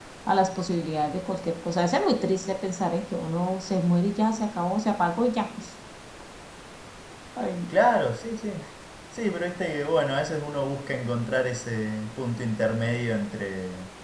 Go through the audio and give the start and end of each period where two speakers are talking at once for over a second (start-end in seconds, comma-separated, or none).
none